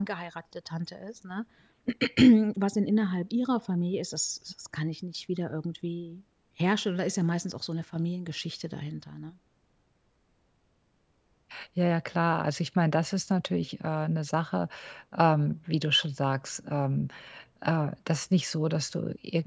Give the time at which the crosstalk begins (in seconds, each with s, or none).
none